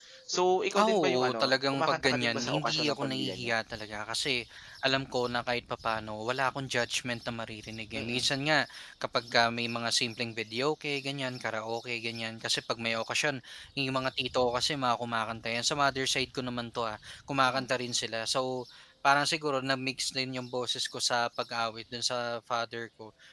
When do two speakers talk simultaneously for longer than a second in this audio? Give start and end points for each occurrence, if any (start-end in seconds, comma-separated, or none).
0.8-3.5